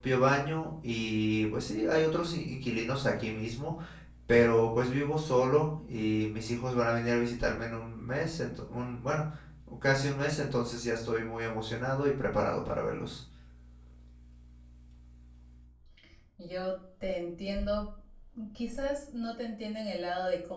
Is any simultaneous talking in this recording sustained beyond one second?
No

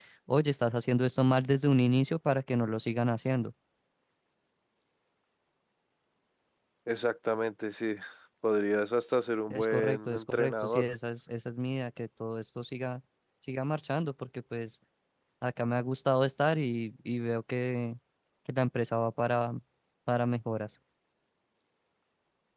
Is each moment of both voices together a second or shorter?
No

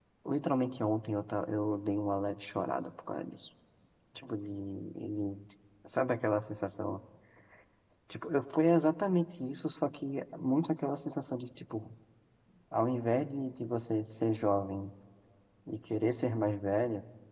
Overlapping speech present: No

